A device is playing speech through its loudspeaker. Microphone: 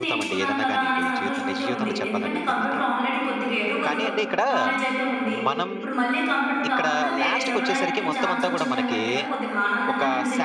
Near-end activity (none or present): present